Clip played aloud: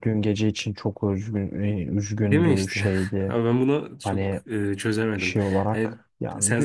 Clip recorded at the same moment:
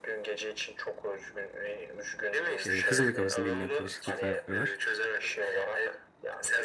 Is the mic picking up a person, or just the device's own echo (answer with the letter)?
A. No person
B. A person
B